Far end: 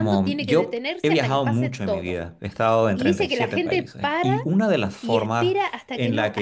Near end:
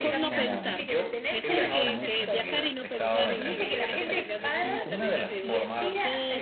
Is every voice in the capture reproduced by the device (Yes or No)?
No